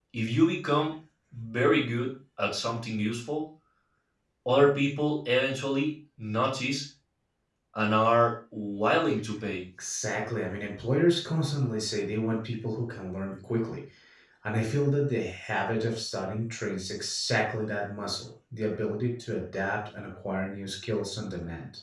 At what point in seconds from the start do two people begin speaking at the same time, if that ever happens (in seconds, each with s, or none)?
none